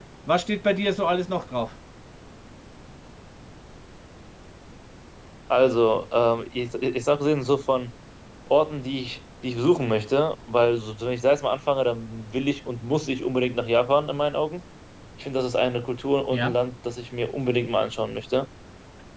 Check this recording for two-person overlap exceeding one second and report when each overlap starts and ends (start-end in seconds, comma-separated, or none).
none